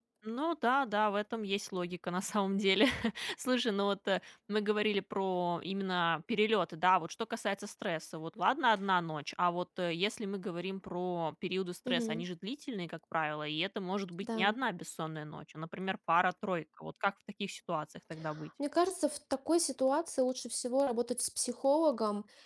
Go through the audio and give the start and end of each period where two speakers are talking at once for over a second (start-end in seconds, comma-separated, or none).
none